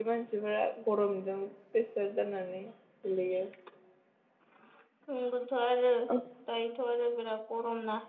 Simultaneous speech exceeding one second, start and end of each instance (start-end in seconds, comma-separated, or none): none